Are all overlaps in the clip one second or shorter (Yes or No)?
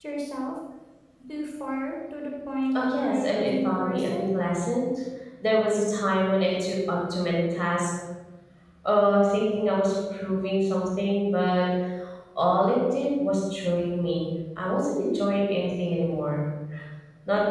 No